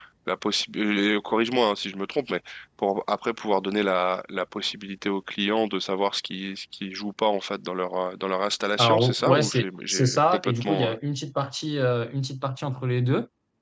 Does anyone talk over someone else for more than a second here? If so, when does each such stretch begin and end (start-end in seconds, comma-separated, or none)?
8.8-10.9